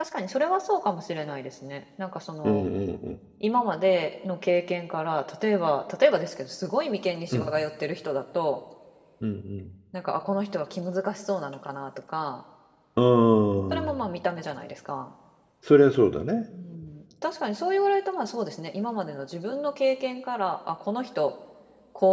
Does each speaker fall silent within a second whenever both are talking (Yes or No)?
Yes